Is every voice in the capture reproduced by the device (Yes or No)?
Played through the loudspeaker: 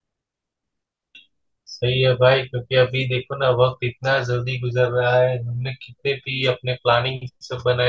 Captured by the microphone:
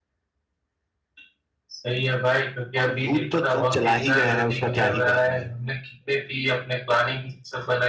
No